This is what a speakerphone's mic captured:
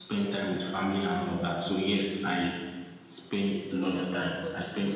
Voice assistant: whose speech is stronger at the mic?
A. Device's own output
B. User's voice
A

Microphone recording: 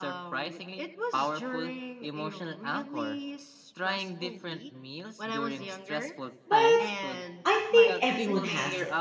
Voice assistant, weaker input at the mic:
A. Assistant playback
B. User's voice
A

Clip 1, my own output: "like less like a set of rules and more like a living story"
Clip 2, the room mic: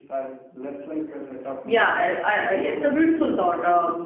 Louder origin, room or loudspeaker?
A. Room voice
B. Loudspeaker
A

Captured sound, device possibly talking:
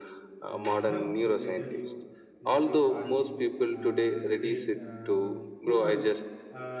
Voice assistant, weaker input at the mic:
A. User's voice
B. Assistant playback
A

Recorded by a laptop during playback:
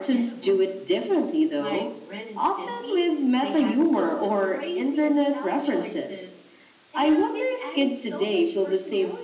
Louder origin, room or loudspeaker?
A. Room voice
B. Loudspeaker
B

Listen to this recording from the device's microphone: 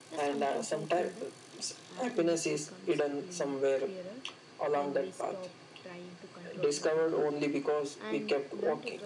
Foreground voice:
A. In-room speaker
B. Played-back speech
B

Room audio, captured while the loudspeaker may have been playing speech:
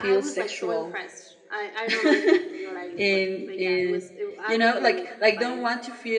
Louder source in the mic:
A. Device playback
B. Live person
B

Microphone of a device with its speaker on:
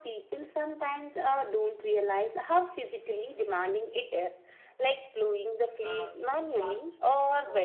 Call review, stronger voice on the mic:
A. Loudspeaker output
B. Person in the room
A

